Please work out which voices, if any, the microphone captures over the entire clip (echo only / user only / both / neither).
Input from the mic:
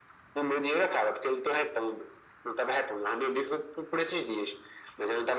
echo only